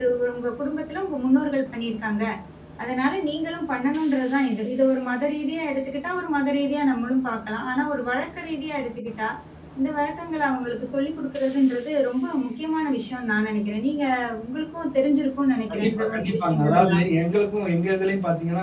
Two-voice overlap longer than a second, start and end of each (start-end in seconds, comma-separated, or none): 15.7-17.0